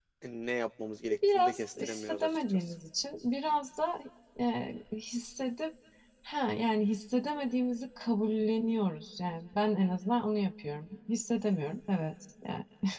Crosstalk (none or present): present